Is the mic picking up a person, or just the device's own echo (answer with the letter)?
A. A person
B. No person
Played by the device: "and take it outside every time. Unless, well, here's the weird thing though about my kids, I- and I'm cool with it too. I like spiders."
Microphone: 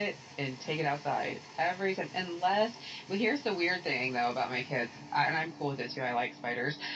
B